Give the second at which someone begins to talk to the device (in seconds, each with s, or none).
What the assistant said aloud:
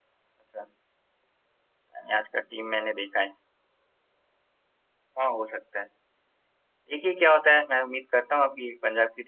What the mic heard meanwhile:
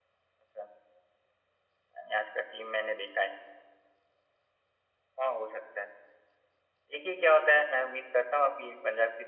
none